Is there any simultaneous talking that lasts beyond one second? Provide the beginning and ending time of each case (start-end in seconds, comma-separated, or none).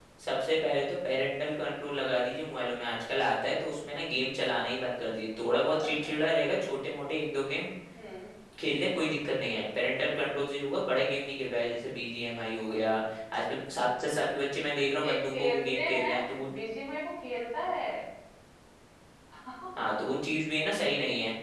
15.0-16.5